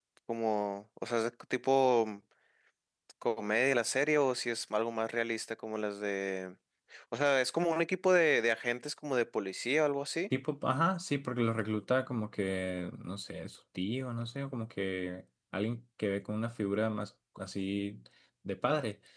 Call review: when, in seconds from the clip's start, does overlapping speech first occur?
none

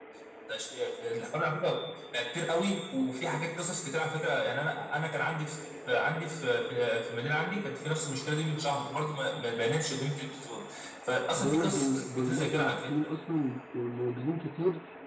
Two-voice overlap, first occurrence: 11 s

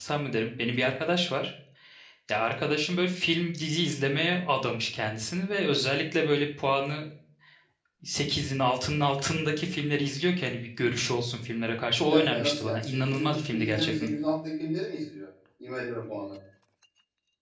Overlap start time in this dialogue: 12 s

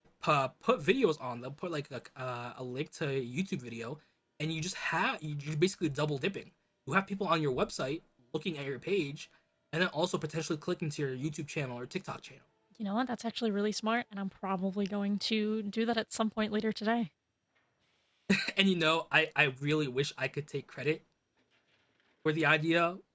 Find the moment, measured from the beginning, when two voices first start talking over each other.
none

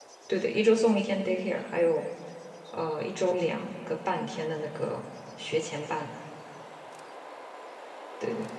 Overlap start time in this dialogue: none

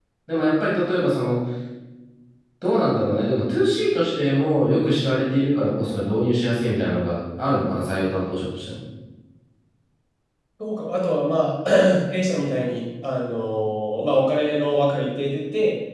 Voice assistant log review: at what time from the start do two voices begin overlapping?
none

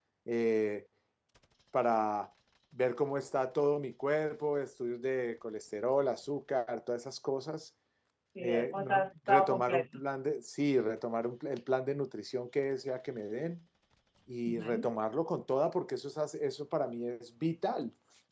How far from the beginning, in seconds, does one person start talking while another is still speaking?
8 s

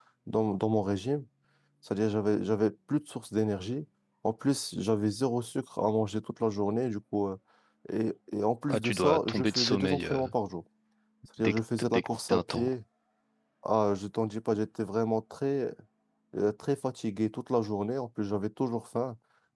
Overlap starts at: 9 s

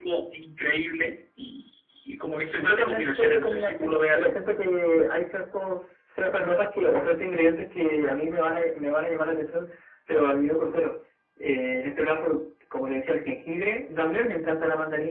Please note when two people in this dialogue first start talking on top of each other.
3 s

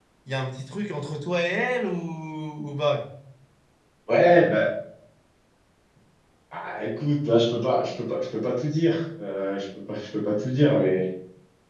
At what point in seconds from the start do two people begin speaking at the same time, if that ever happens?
none

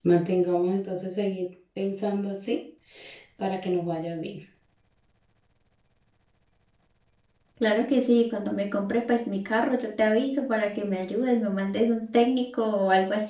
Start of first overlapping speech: none

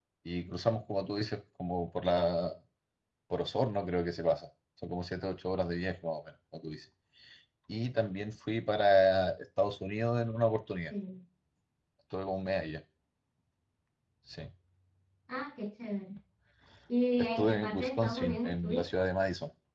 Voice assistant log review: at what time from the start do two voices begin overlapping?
17 s

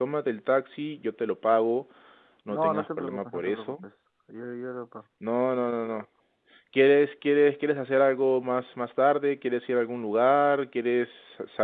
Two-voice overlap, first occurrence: 3 s

